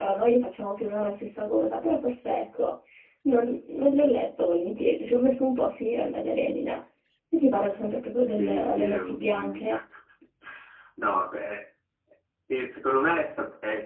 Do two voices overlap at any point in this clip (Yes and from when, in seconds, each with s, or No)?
Yes, from 8.4 s